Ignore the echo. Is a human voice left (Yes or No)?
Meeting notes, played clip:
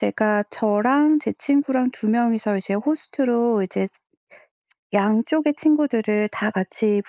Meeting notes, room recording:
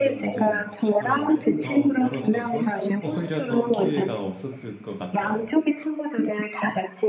Yes